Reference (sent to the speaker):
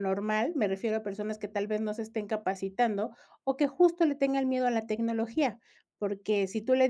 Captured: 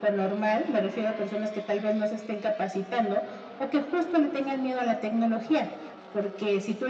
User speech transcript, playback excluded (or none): none